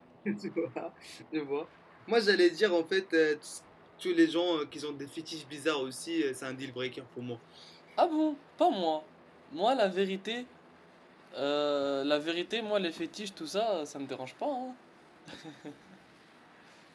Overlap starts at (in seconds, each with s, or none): none